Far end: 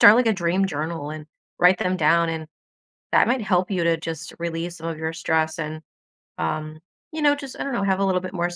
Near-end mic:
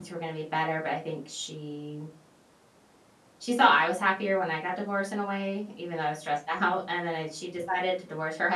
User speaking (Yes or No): Yes